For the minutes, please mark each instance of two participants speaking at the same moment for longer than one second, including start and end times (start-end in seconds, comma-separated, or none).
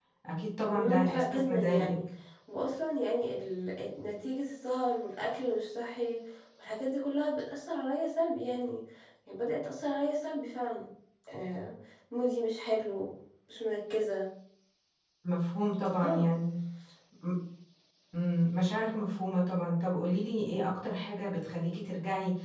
0.7-2.0